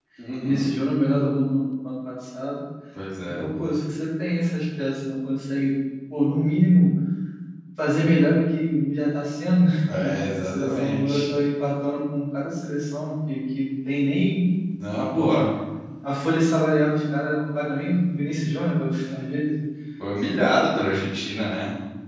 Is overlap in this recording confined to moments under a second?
No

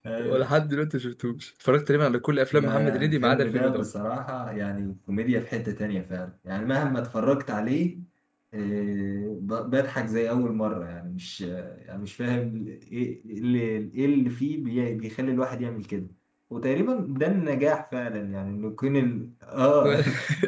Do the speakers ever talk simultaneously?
Yes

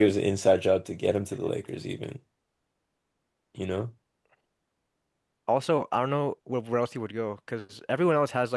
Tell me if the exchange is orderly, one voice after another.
Yes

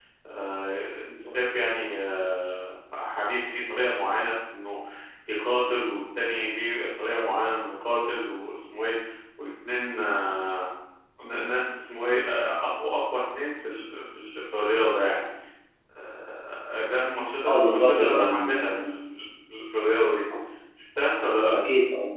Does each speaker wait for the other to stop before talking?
No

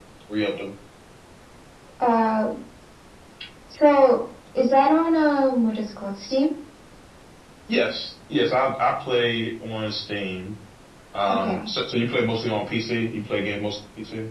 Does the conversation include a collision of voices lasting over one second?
No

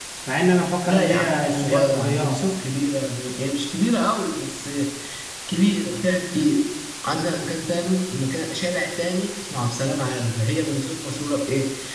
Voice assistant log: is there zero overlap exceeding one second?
No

